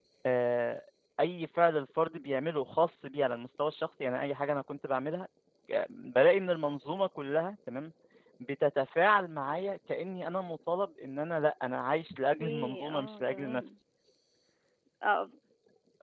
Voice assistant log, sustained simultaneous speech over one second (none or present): present